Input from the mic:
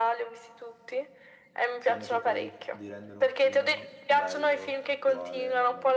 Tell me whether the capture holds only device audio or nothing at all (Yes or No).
No